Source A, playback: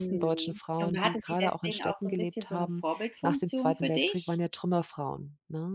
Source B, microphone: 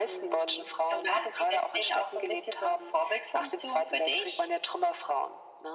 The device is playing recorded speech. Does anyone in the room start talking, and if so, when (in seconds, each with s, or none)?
none